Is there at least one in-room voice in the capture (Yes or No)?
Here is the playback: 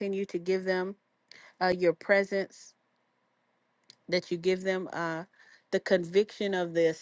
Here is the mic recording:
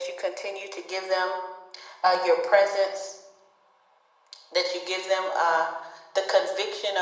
No